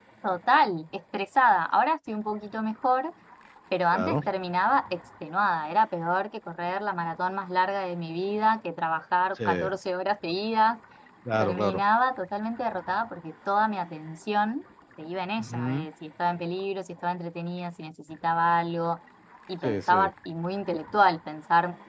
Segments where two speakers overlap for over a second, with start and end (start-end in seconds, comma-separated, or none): none